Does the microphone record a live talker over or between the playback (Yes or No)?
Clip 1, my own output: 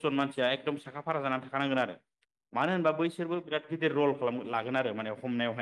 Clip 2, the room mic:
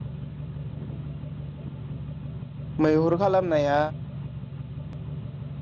Yes